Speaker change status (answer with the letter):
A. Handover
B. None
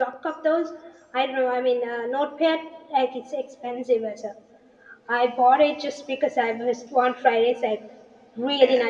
B